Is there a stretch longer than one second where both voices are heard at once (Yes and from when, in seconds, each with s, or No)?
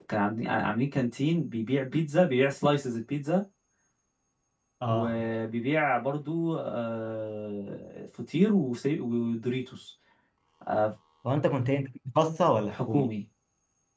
No